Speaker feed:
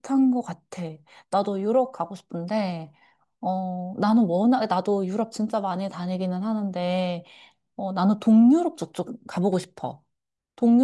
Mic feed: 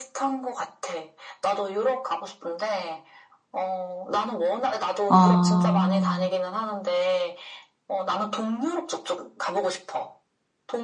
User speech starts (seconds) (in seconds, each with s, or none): 5.1 s